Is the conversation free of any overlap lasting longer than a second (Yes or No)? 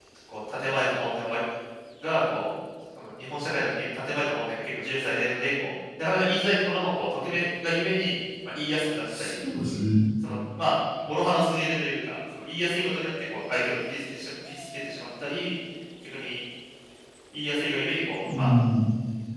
Yes